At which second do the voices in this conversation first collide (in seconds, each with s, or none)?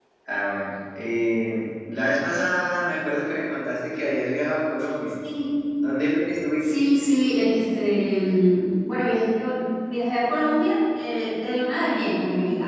none